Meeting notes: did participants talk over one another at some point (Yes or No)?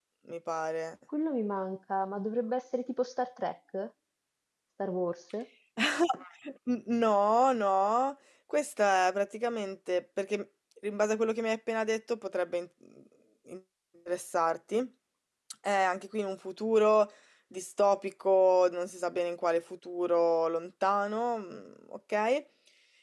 No